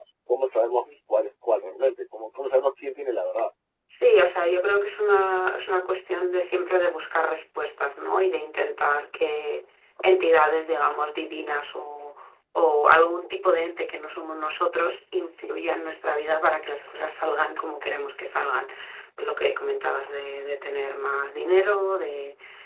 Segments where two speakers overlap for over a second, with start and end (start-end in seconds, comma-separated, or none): none